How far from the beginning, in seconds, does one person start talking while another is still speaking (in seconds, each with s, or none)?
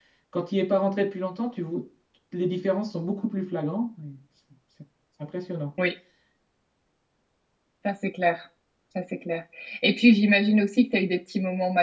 none